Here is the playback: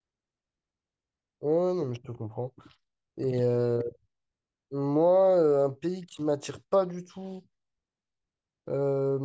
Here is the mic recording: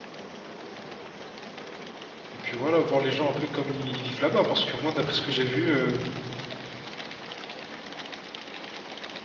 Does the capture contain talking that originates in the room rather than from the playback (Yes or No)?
Yes